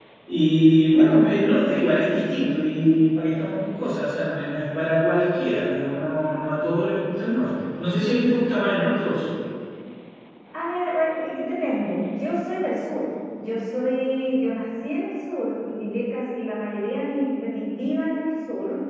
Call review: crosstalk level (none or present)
none